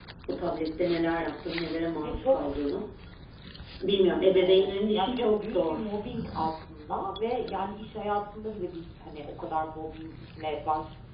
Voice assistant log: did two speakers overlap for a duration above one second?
Yes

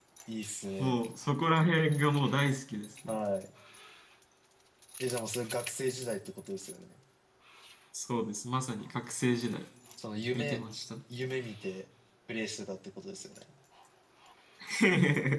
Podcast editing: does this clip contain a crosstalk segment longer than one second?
No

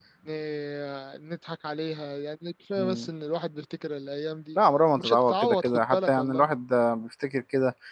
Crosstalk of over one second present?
Yes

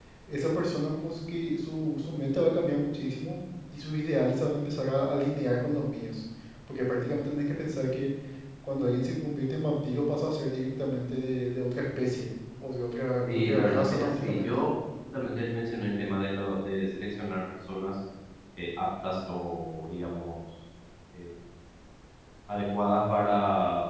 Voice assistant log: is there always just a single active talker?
No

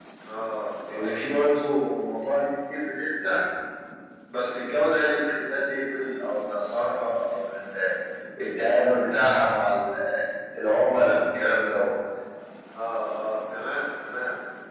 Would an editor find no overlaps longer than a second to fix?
Yes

